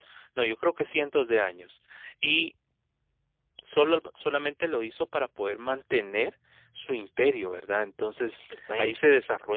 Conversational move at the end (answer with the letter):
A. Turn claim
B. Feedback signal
B